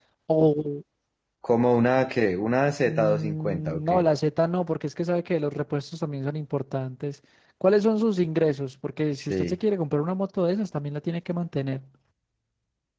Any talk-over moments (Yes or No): Yes